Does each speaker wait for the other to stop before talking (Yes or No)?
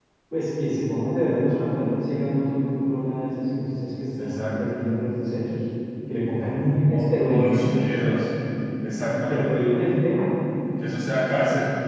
No